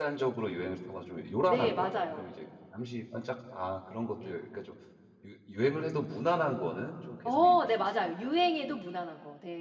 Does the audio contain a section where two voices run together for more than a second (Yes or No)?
Yes